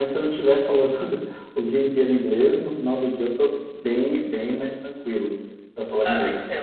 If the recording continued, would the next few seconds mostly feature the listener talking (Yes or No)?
Yes